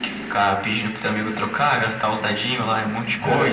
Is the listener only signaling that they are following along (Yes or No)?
Yes